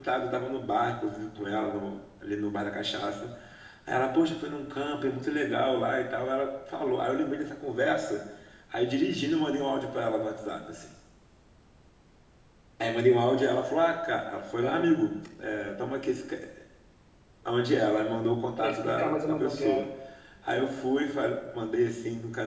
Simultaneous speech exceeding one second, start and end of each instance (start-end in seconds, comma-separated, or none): 18.6-19.8